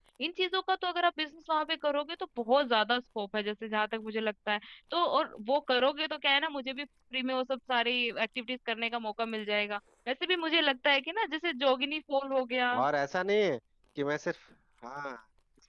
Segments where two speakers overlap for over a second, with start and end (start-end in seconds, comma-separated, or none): none